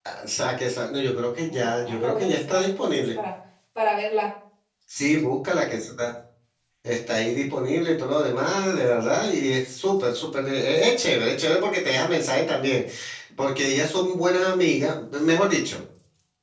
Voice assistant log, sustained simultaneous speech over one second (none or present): present